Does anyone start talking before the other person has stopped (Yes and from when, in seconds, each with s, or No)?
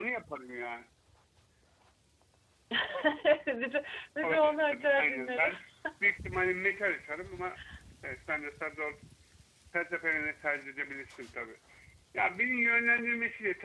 Yes, from 4.2 s